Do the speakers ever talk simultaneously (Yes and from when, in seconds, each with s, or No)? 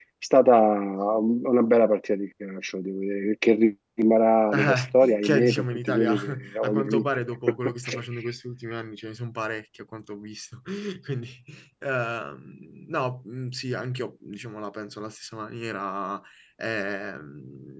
Yes, from 4.5 s